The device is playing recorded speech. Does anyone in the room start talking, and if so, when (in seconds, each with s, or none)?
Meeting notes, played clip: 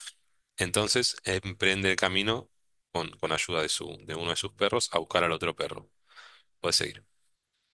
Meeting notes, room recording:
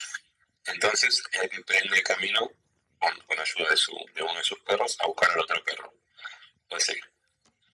none